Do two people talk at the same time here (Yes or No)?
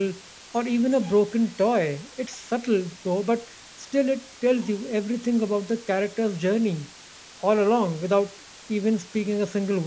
No